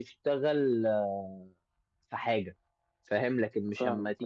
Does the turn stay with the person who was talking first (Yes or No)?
Yes